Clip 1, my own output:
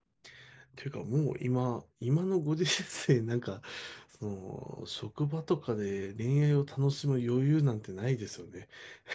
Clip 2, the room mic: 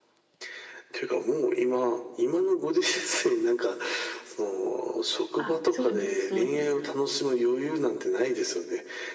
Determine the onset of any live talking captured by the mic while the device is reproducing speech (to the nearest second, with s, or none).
5 s